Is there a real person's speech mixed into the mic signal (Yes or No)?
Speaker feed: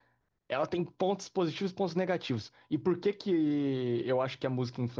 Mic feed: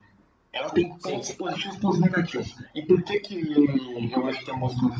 Yes